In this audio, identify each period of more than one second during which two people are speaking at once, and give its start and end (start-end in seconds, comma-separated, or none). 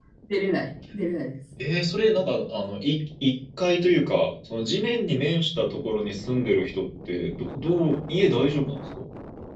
none